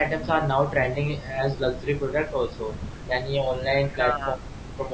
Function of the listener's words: listening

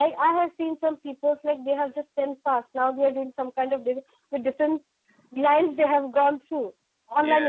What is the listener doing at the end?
listening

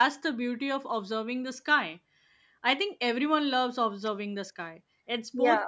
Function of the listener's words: listening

